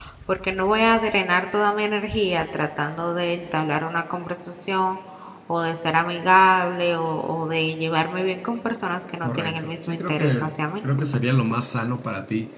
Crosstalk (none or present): present